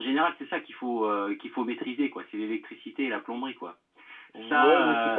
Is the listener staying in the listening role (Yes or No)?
No